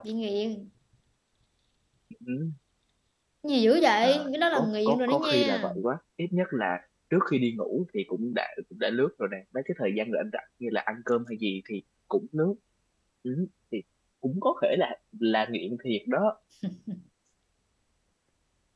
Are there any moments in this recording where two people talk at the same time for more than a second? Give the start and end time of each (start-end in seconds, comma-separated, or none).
4.5-5.7